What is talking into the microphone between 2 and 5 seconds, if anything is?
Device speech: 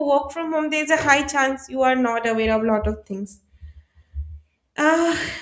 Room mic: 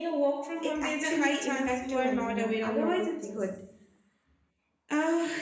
both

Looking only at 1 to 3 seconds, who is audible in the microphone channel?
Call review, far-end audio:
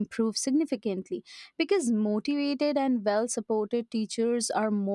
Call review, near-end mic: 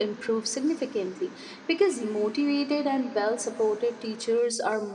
echo only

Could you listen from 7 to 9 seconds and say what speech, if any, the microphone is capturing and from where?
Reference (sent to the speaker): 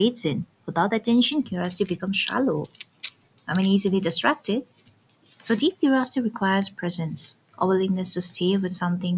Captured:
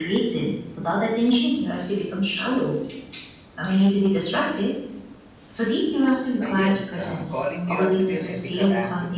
both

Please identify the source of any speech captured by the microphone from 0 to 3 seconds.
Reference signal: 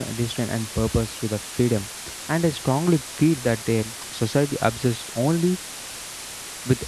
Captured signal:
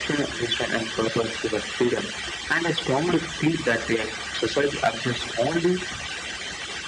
echo only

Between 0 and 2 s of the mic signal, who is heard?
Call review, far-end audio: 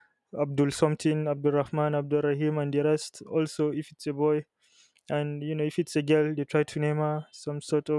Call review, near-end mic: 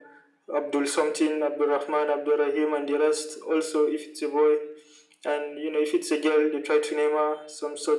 echo only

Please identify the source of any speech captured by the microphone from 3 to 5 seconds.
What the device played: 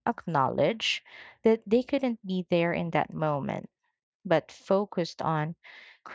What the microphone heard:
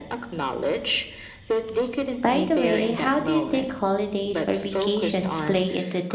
both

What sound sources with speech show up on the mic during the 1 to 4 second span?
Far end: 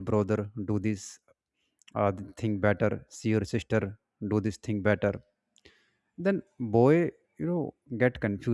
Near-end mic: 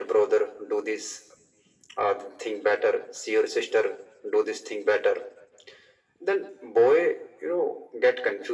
echo only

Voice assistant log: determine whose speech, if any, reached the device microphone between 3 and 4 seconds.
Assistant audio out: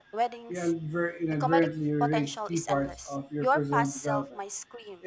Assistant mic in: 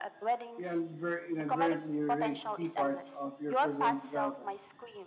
echo only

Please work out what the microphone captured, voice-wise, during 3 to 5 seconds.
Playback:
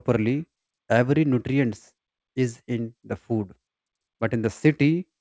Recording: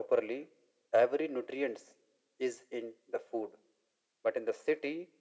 echo only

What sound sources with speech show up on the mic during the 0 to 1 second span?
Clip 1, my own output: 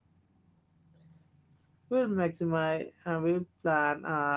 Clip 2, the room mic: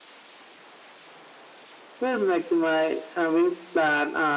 neither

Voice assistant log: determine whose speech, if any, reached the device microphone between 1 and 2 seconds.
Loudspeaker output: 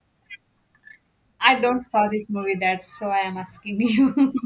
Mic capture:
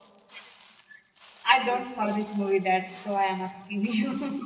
echo only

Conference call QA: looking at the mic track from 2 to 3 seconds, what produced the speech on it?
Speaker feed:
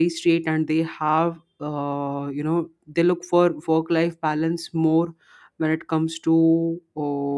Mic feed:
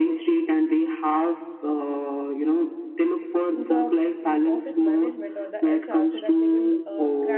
echo only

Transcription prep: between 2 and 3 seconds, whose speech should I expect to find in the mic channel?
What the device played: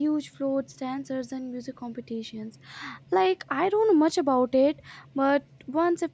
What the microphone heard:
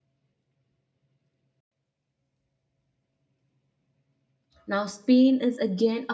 neither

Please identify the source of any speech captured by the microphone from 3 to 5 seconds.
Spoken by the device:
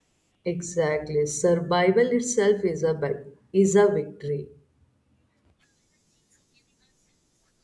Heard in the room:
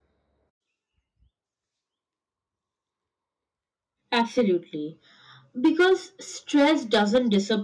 user only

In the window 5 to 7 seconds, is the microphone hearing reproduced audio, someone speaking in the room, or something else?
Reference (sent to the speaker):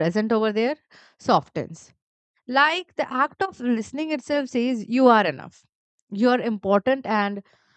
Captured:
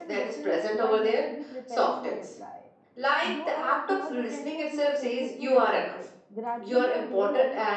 both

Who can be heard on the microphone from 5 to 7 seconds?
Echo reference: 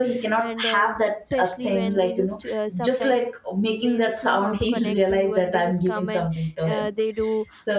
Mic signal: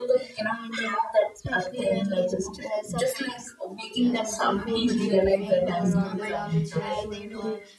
both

